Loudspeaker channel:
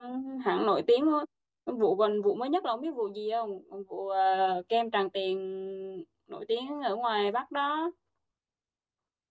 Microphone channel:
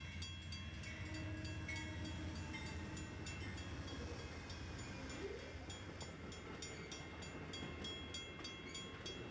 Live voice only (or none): none